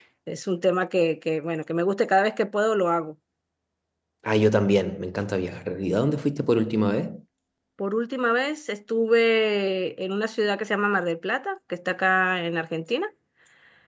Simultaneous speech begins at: none

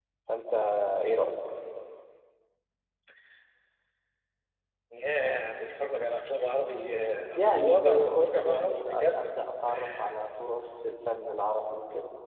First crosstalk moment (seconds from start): 7 s

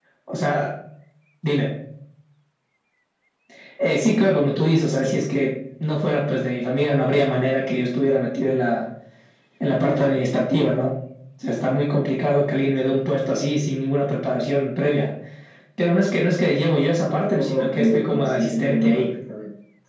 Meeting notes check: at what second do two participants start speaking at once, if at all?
17 s

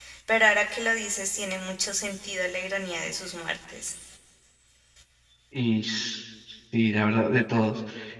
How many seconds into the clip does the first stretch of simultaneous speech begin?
none

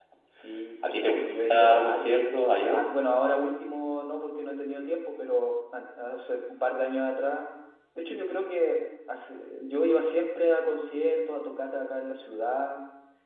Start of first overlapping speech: 1 s

